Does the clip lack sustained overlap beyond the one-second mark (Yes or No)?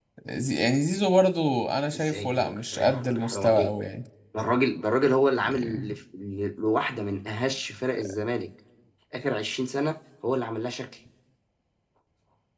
No